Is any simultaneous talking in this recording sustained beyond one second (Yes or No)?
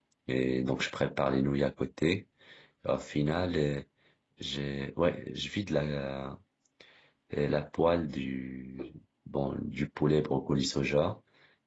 No